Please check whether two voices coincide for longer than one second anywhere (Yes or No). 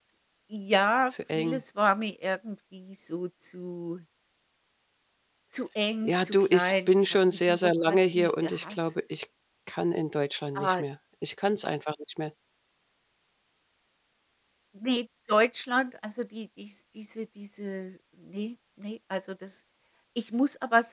Yes